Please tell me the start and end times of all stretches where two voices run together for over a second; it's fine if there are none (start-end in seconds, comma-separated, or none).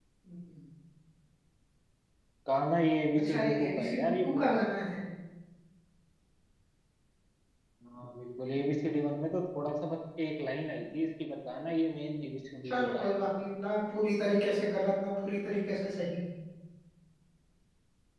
3.2-4.5